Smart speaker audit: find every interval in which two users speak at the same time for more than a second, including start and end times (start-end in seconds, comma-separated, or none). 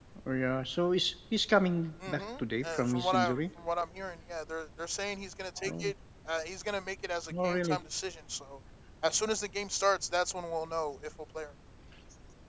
2.1-3.4